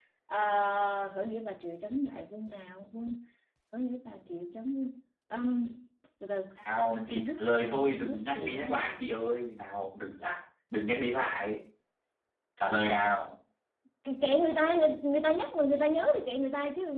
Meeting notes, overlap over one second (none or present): present